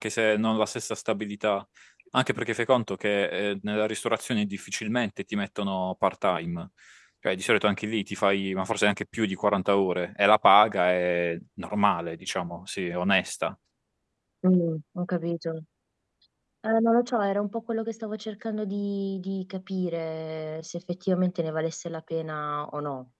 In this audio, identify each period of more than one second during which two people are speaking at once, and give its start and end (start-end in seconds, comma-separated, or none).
none